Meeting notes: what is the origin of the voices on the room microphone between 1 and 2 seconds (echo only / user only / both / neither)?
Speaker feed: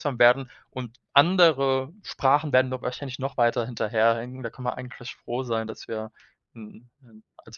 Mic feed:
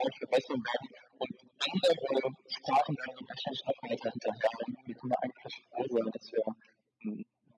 echo only